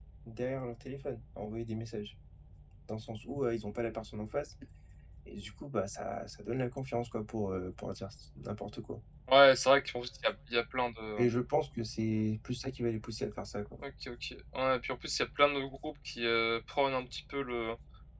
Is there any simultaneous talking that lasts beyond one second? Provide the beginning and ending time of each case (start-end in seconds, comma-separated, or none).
none